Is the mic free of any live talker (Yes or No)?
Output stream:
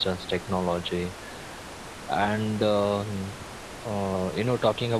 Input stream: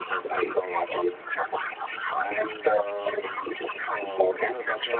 Yes